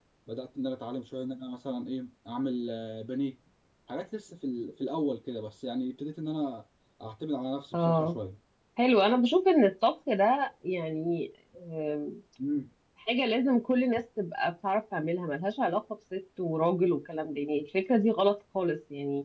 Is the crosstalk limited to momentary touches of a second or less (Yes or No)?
Yes